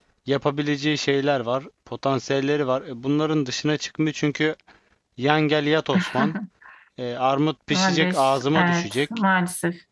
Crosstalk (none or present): present